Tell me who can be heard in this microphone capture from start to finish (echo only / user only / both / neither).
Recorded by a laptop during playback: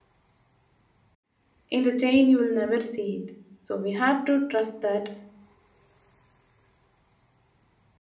user only